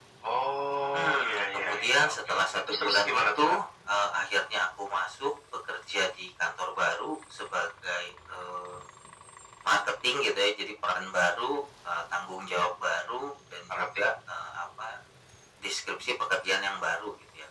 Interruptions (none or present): present